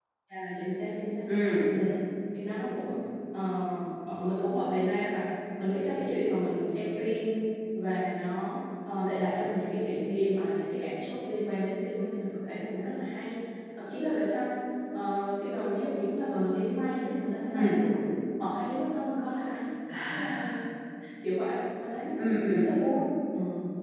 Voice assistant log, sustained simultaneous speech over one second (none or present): none